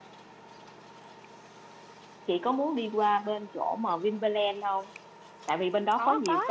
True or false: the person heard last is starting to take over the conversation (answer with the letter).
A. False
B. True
A